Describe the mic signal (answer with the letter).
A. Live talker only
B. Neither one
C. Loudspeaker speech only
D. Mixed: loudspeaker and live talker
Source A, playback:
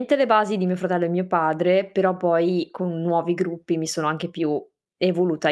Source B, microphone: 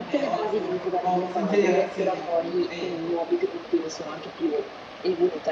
D